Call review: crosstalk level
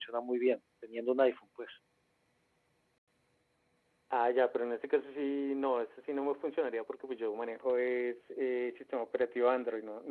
none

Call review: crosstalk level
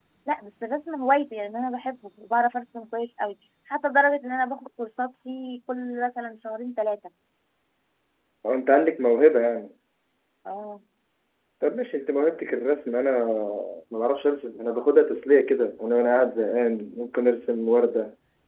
none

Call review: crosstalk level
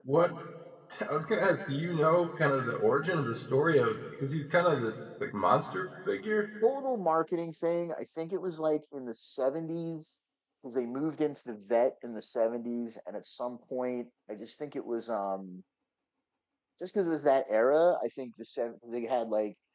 none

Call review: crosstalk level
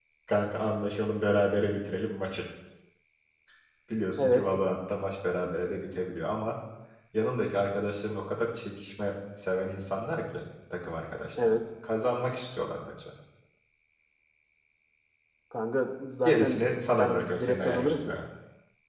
present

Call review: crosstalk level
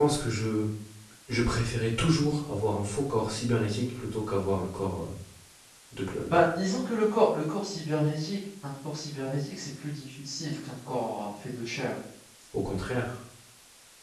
none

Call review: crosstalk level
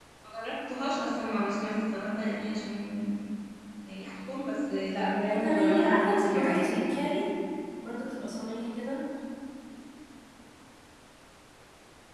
present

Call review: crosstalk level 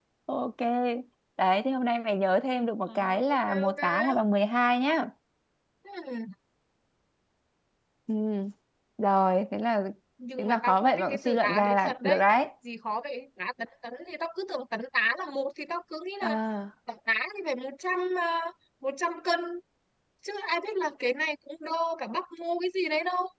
present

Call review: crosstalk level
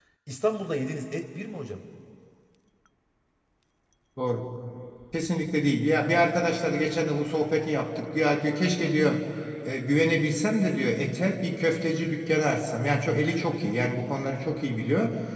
none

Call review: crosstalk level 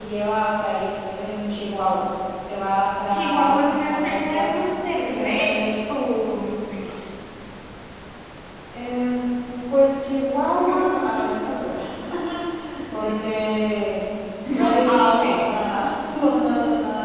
present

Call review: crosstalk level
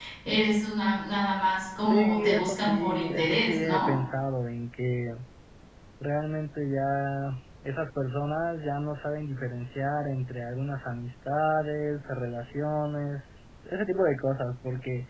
present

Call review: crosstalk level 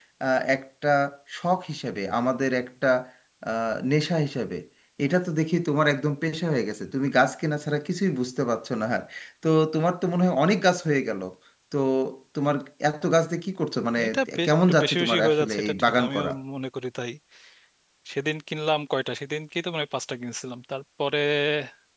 present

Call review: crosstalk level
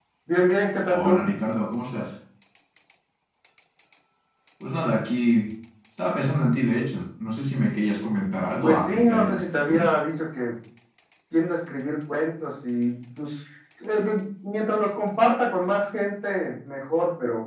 present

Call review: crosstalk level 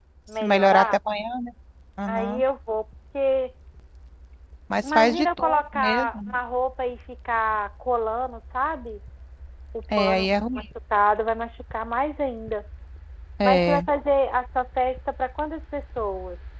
present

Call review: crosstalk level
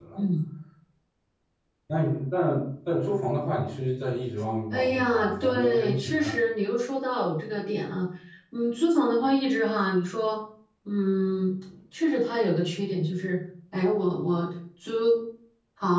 present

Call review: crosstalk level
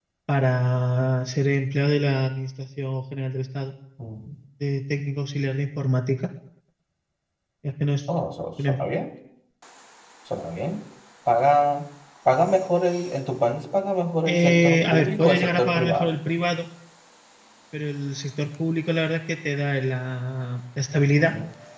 present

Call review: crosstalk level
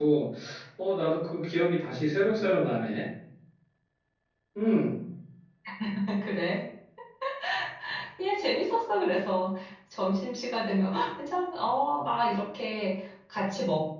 none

